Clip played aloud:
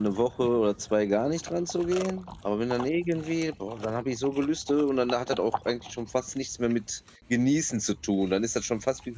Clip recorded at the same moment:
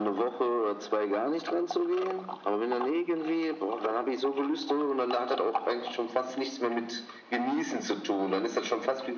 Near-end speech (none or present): none